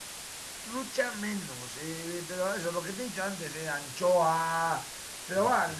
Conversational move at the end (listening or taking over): listening